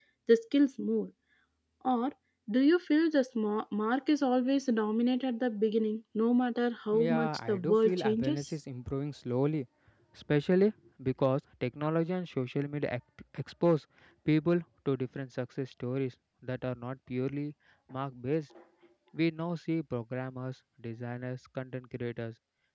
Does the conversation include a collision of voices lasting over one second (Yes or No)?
Yes